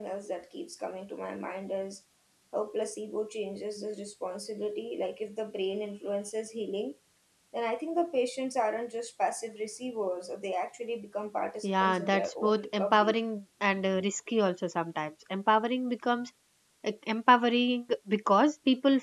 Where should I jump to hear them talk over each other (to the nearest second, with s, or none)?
12 s